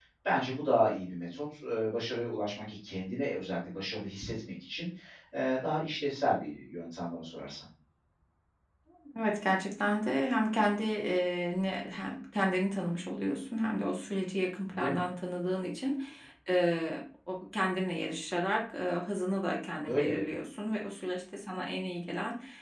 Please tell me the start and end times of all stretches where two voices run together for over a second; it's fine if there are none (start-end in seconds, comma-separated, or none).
none